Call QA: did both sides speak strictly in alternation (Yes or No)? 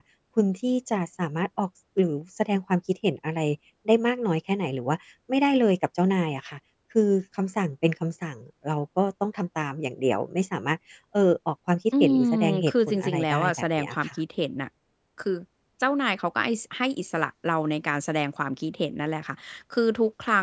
No